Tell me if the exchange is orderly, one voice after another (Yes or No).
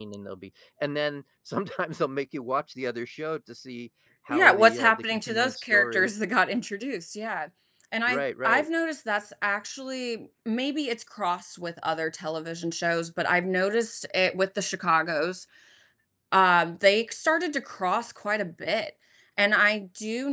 No